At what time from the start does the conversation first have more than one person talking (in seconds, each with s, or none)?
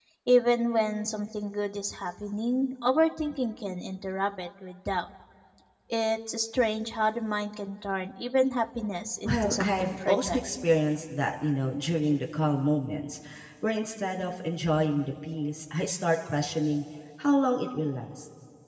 9.2 s